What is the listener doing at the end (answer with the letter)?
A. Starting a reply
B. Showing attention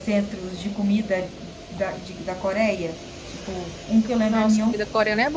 A